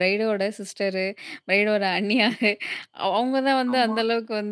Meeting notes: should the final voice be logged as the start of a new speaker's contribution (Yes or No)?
No